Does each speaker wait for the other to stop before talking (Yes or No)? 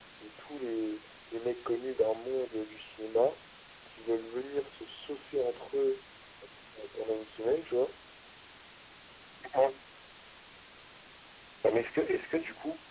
Yes